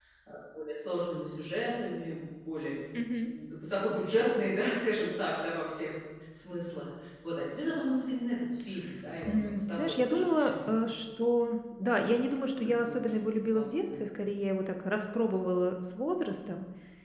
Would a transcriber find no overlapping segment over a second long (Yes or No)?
No